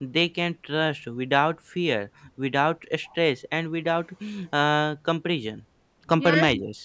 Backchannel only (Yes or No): No